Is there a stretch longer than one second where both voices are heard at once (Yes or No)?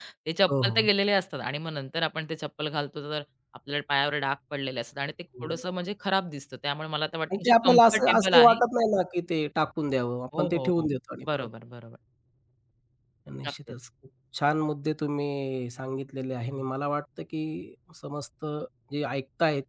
Yes